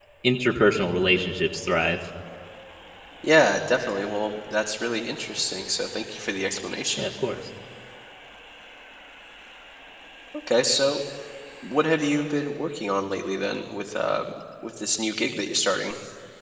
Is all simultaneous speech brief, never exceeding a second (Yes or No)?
Yes